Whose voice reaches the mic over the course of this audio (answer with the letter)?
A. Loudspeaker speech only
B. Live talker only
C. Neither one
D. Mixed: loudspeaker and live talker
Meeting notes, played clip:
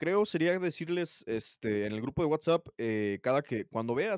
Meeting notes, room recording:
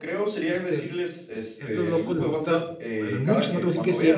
D